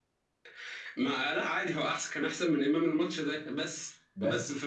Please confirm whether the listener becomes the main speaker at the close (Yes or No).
No